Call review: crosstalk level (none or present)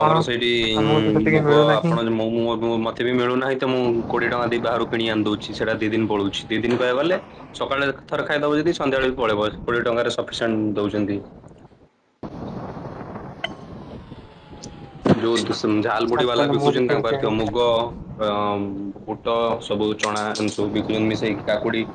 present